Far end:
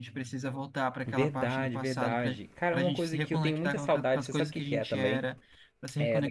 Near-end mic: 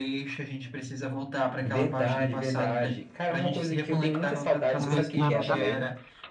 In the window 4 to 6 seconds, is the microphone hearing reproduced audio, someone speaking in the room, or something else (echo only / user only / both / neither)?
both